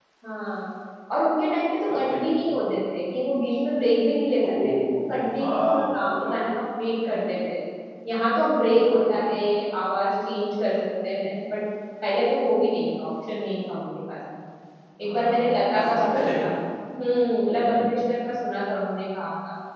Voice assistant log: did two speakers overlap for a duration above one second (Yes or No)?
Yes